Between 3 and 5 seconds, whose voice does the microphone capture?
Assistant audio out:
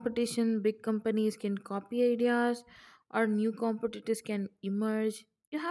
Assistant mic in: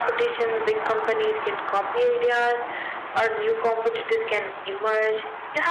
echo only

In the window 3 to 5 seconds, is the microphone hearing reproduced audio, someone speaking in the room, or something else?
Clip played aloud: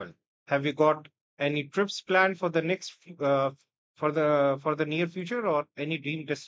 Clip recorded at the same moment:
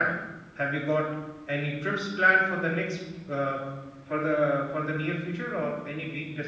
echo only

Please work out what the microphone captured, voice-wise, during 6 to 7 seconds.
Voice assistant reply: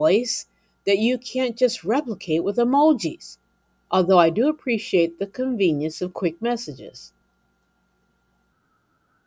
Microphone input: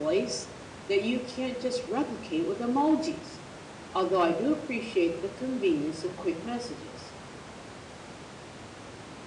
echo only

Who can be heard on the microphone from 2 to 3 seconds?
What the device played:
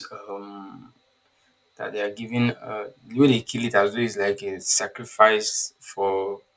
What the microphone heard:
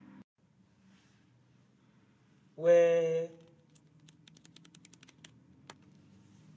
user only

